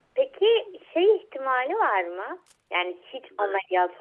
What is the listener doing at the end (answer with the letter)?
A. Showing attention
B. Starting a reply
A